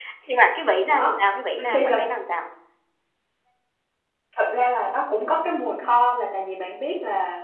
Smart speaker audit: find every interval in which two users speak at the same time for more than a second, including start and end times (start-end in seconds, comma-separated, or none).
none